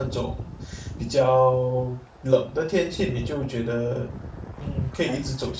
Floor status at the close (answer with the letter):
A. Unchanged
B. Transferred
B